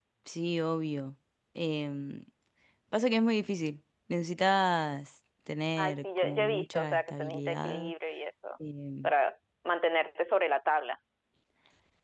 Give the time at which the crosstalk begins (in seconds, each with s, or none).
5.8 s